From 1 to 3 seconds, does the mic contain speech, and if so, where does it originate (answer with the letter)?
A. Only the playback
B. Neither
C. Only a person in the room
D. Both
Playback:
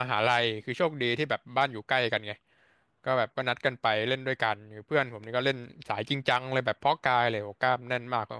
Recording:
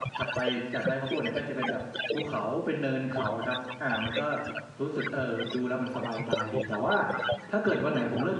D